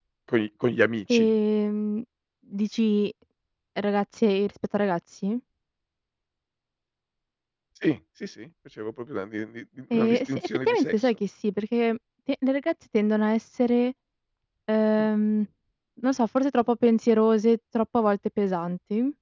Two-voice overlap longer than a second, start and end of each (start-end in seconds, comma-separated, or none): 9.9-11.2